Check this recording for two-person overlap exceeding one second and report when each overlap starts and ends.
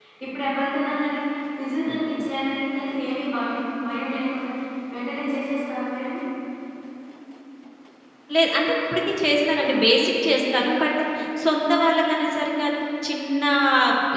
none

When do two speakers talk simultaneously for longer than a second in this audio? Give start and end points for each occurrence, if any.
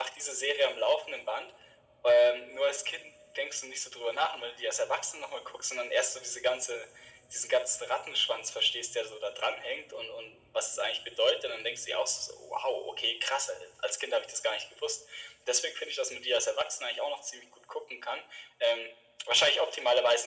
none

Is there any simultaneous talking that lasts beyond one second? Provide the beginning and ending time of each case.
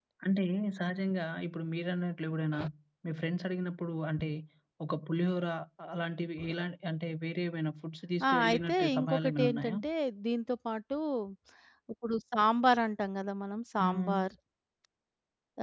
8.3-9.8

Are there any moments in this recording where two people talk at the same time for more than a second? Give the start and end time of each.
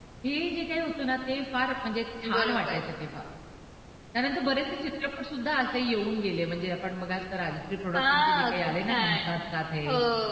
8.0-9.2

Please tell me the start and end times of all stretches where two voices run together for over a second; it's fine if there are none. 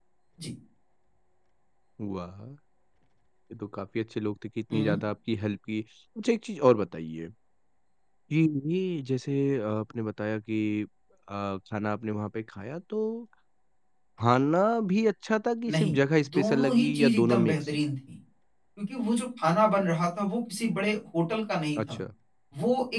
15.7-17.6

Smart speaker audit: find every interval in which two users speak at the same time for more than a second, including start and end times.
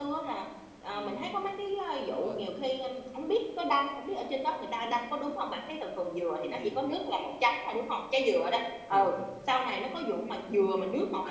none

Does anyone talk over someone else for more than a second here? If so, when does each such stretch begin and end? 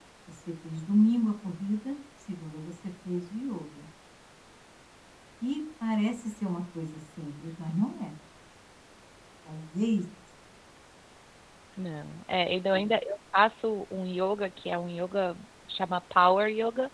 none

